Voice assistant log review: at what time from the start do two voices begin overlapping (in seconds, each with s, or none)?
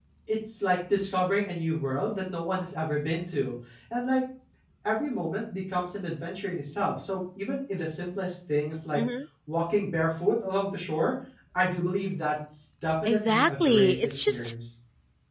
13.0 s